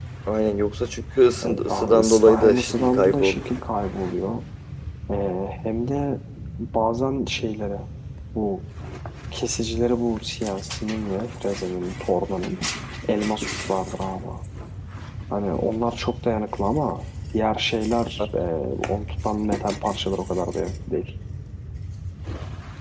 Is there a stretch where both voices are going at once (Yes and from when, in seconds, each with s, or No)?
Yes, from 1.4 s